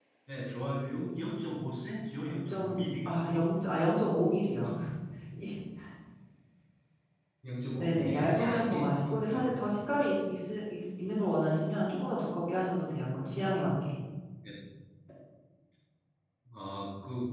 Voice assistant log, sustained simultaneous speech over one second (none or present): present